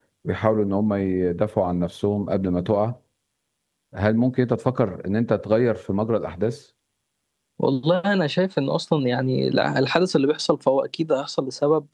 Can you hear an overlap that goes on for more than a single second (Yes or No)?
No